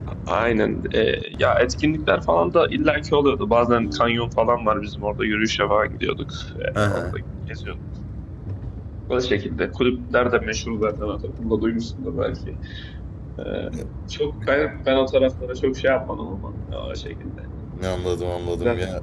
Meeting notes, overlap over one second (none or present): none